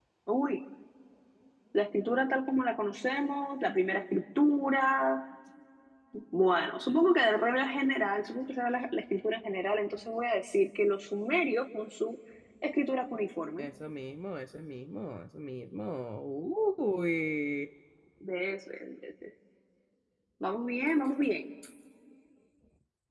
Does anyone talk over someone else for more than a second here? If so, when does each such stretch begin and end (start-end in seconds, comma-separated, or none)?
none